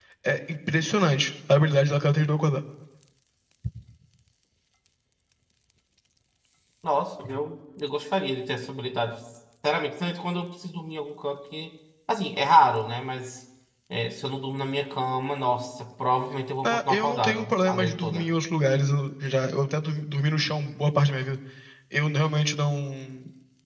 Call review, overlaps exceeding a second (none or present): present